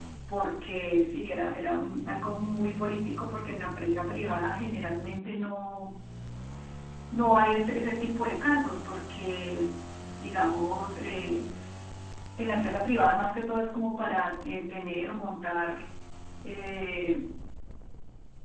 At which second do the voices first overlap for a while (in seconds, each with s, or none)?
none